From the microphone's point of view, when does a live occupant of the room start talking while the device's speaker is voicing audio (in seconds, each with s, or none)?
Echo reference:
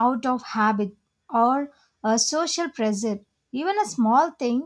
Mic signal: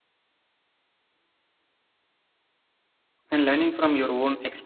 3.3 s